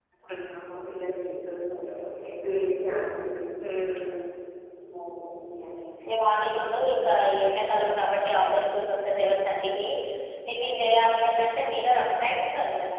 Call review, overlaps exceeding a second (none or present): none